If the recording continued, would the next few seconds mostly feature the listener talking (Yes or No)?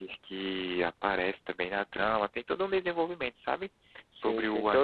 Yes